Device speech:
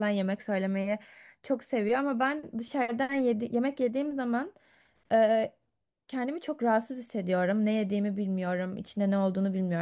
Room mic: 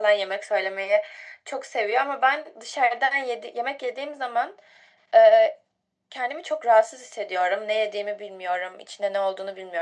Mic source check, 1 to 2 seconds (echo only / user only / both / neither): echo only